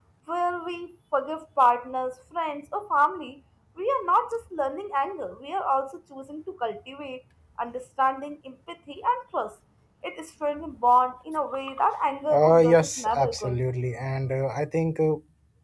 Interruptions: present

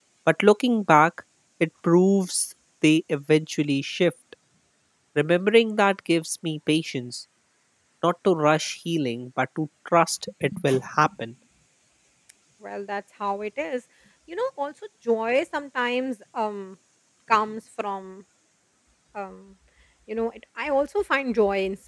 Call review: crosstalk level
none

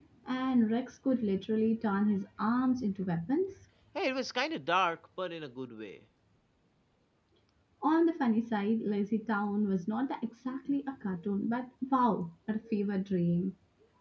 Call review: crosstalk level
none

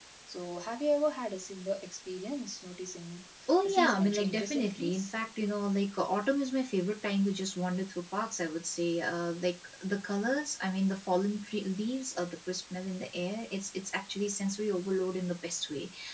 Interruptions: present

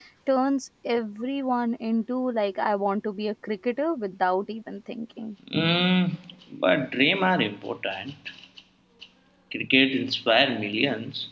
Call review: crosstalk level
none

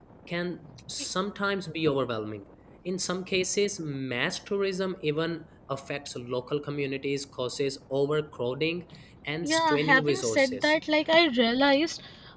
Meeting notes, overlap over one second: present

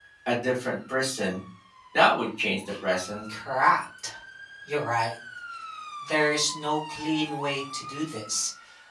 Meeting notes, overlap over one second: none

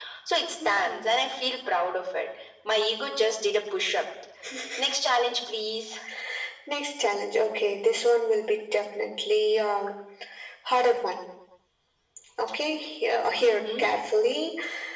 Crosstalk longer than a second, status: none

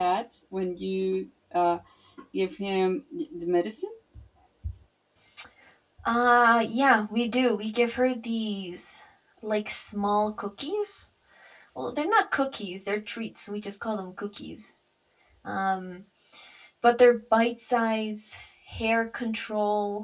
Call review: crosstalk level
none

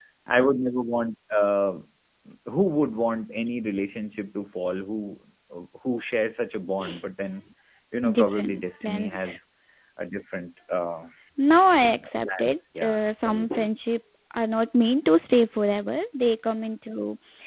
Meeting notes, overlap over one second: present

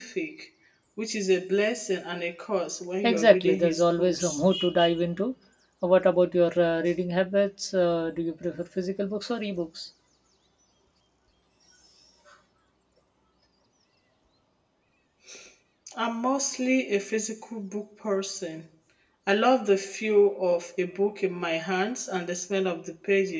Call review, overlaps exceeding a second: present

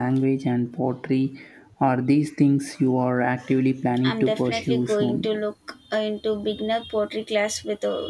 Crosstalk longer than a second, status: present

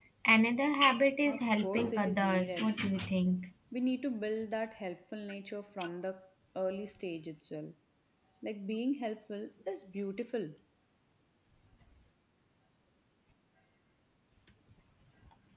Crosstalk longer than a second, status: present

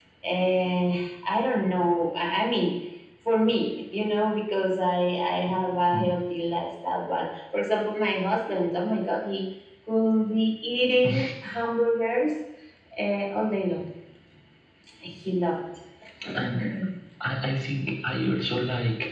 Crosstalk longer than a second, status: none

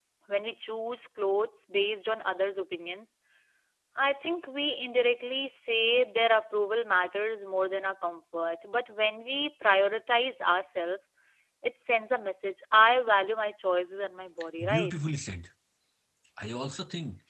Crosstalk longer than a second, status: none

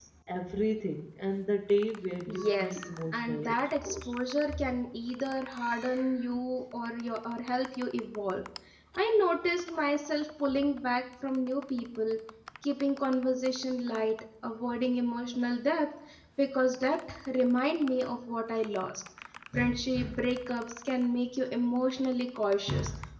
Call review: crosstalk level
present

